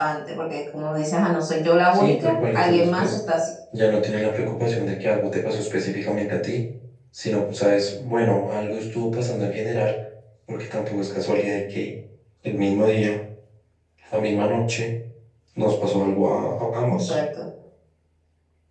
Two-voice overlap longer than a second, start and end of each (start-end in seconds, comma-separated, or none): 1.9-3.1